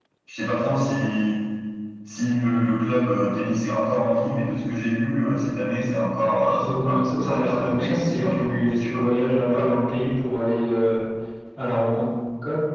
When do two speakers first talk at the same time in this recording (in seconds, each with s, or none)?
6.4 s